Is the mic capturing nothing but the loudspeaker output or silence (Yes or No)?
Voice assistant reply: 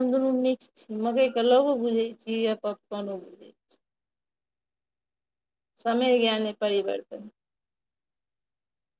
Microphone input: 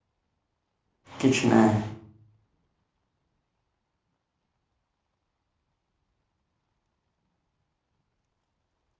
No